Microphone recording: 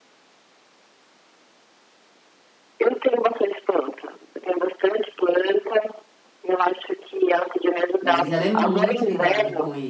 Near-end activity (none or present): present